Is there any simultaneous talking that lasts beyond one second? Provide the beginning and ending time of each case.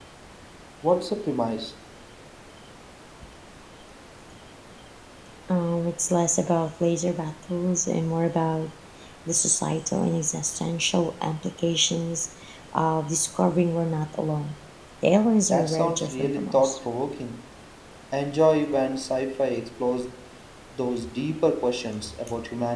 15.4-16.8

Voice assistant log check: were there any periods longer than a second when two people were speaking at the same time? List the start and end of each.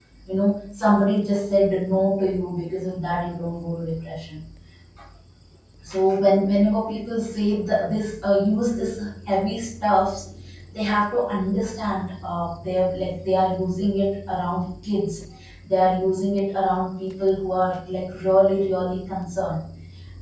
none

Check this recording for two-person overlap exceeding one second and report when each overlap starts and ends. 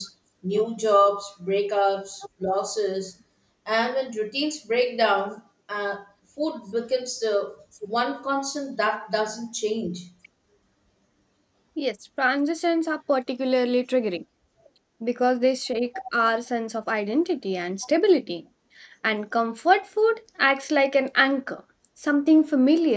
none

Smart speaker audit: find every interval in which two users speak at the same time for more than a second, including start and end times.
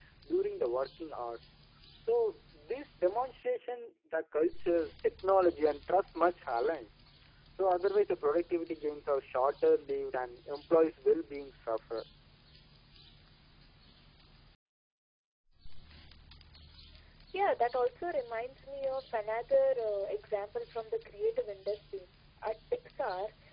none

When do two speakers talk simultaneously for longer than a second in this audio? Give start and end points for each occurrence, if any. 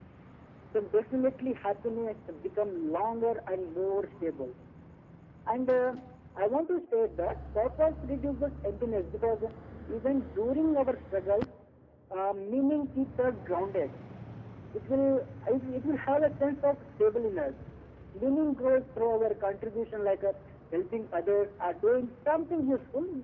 none

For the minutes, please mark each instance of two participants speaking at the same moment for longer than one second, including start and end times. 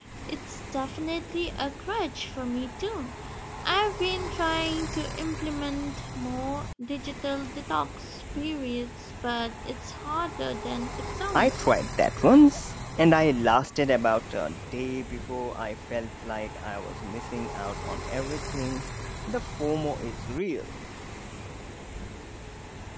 none

